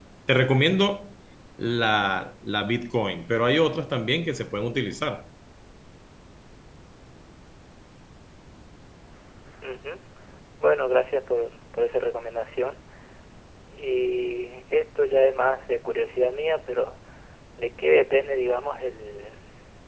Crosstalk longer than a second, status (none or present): none